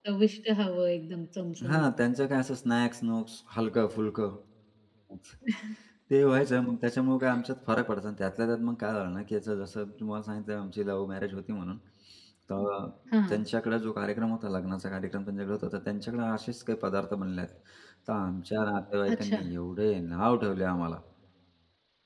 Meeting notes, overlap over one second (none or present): none